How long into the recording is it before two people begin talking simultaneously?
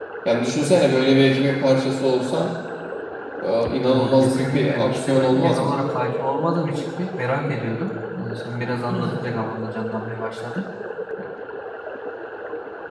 3.9 s

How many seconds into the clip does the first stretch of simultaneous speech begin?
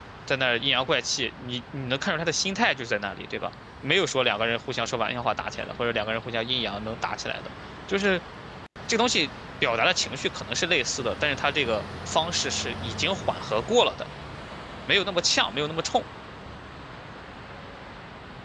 none

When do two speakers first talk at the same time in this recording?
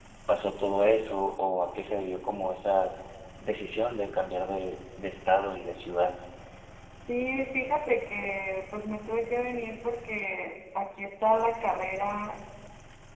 none

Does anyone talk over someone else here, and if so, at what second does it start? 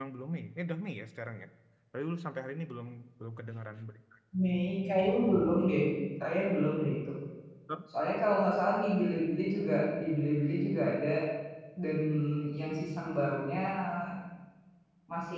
none

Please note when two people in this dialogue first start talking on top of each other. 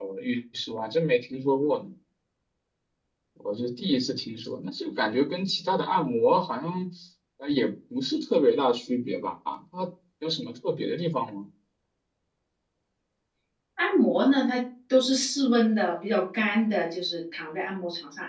none

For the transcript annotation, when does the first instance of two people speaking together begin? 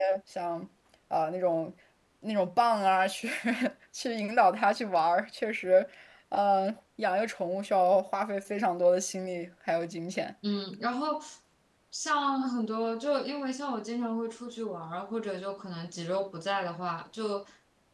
none

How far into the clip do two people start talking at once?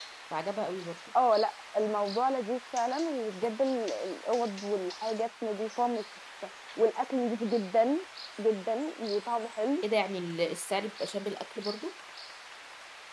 none

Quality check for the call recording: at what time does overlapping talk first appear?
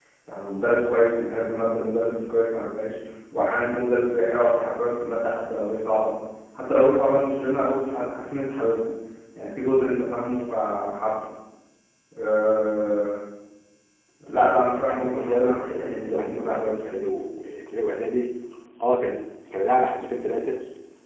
14.8 s

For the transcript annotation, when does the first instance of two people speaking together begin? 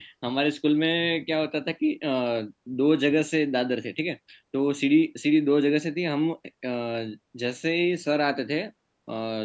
none

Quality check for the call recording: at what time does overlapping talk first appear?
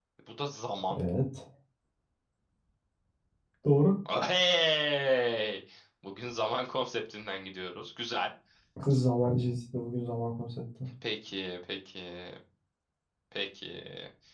none

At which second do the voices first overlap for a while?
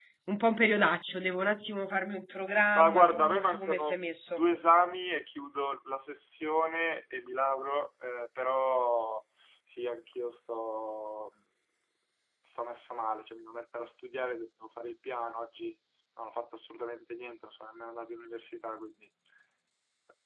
2.7 s

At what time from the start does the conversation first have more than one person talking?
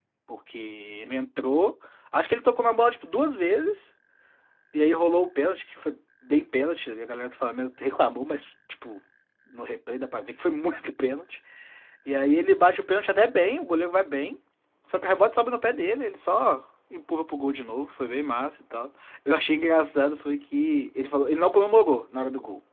none

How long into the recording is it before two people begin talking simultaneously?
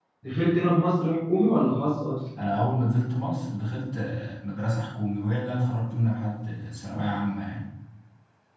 none

